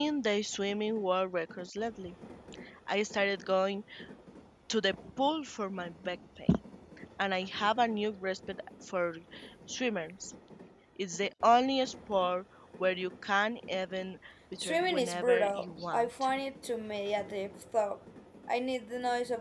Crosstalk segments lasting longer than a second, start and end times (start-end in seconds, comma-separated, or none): 14.6-16.1